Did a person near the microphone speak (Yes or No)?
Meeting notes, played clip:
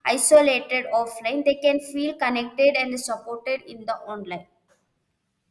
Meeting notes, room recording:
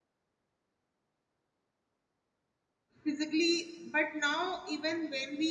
Yes